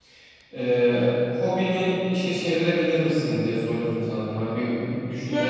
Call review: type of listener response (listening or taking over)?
taking over